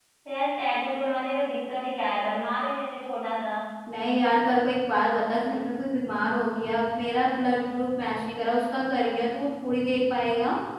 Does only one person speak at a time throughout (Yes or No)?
Yes